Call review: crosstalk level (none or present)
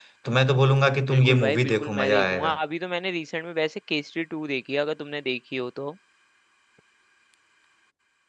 present